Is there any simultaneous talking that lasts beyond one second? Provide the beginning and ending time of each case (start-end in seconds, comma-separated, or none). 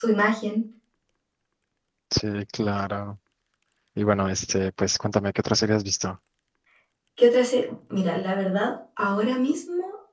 none